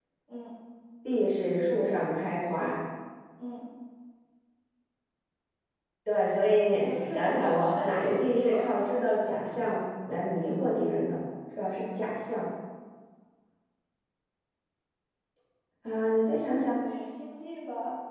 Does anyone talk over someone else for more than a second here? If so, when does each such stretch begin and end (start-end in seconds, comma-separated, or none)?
6.8-8.7